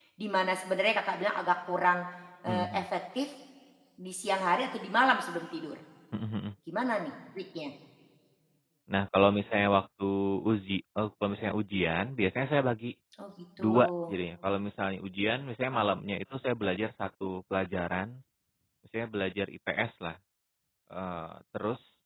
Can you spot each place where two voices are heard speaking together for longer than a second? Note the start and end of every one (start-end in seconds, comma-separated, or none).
none